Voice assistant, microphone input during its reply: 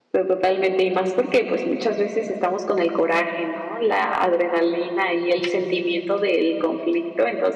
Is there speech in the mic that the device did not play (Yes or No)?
Yes